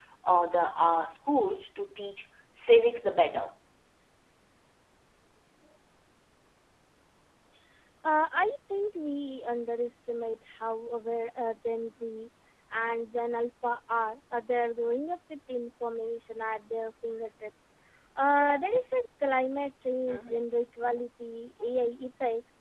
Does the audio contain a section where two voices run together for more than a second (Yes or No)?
No